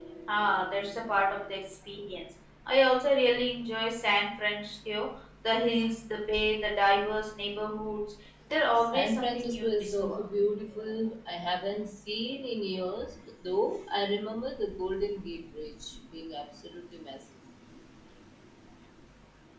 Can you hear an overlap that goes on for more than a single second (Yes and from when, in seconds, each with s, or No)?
Yes, from 8.9 s